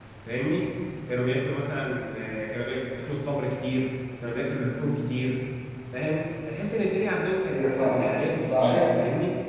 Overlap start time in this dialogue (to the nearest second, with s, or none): 7 s